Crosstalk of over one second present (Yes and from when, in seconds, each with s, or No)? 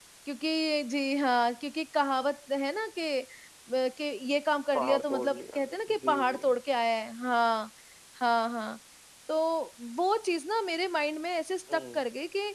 Yes, from 4.7 s